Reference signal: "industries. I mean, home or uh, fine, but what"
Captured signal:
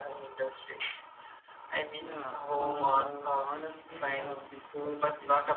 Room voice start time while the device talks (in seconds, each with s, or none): 1.9 s